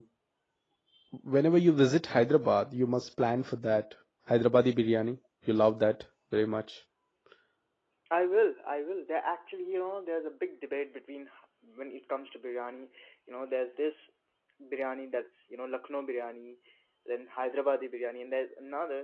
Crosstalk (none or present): none